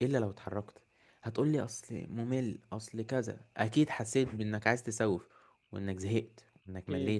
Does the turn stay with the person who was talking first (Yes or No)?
No